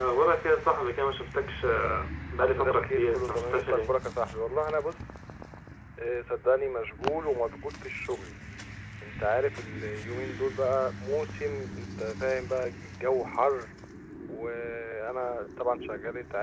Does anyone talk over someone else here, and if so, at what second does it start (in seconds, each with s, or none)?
2.4 s